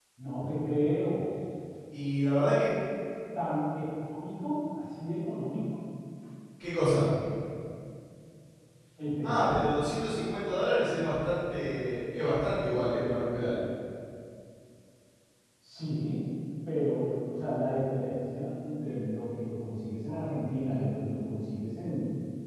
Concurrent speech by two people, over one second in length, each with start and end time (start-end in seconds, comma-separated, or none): none